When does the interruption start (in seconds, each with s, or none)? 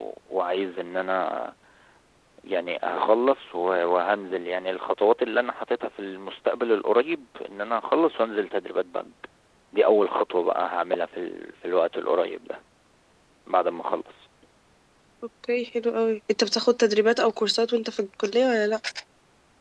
none